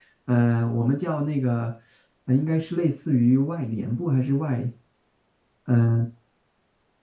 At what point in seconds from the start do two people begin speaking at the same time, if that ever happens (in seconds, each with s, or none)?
none